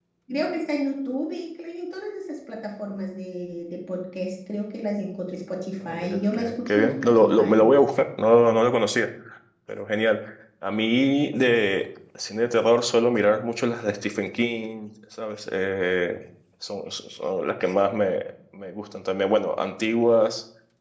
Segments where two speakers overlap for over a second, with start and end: 5.8-7.6

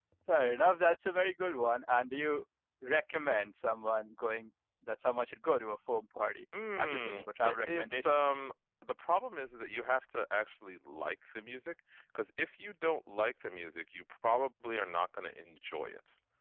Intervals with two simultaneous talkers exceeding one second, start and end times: 6.8-8.3

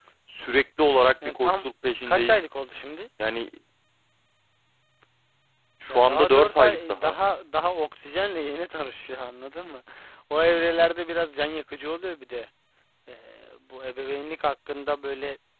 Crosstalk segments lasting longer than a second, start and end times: 5.9-7.2

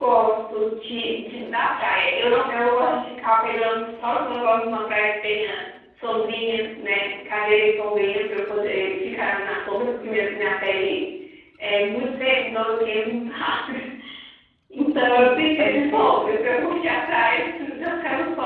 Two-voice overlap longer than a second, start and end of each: 14.8-16.3

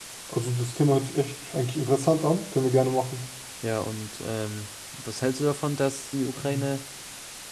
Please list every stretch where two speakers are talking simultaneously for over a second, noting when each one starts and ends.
none

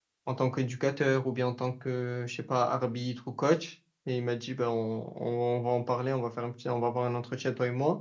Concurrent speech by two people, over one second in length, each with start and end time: none

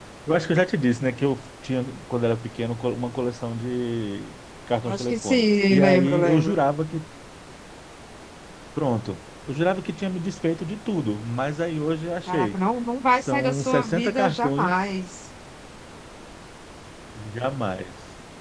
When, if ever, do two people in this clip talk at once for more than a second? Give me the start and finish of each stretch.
4.8-6.5, 13.2-14.8

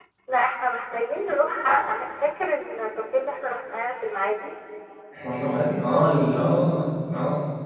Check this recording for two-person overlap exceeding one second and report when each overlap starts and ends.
none

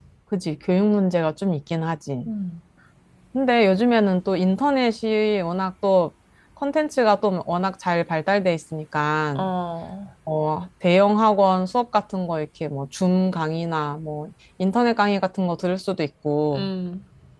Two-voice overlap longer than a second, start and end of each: none

